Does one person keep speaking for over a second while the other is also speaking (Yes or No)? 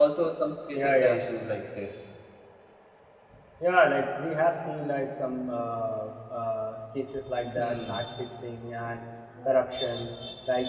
No